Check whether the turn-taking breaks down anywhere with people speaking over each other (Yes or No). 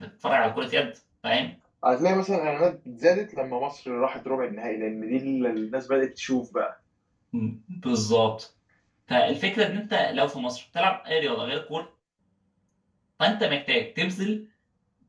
No